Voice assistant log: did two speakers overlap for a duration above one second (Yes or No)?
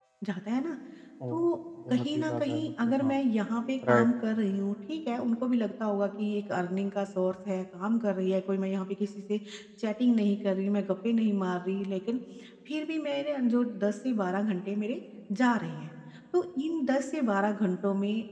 Yes